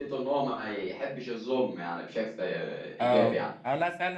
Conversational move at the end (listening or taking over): taking over